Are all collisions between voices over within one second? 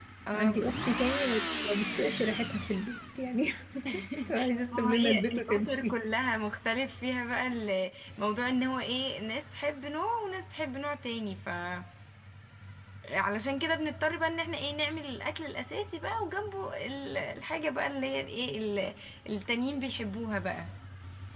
No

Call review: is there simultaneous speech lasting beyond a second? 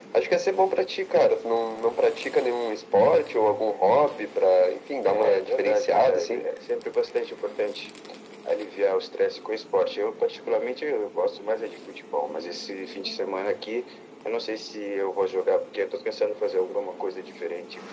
Yes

